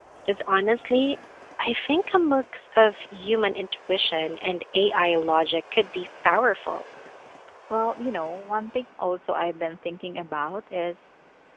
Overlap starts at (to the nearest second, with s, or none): none